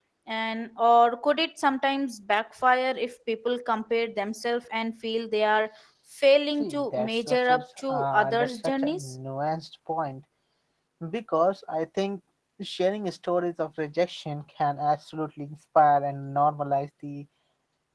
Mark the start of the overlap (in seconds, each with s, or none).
6.6 s